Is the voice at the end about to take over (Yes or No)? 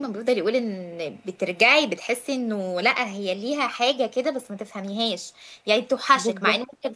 No